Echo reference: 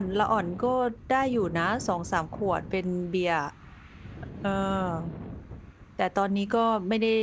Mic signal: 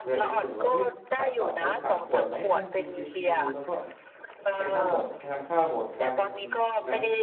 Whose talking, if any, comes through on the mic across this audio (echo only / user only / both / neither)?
both